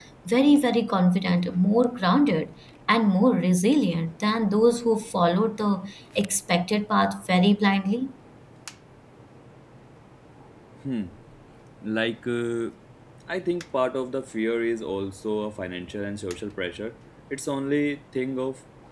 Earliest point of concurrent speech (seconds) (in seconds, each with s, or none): none